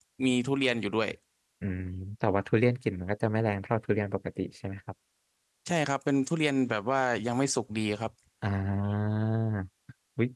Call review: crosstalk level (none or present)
none